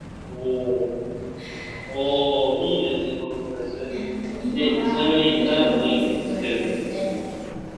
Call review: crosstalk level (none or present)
present